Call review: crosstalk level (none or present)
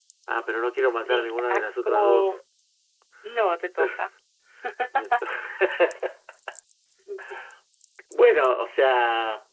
present